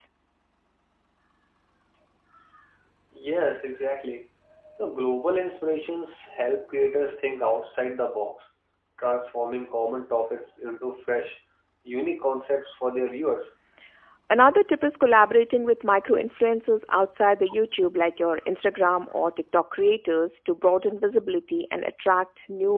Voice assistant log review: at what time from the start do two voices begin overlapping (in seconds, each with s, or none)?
none